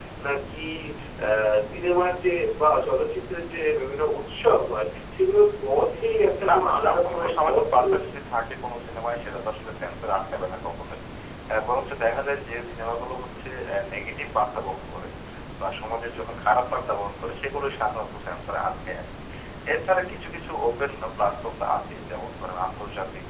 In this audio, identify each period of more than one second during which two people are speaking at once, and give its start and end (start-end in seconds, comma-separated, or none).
6.5-8.1